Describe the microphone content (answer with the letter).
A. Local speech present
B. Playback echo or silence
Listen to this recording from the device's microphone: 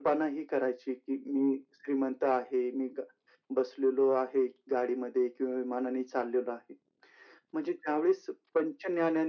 B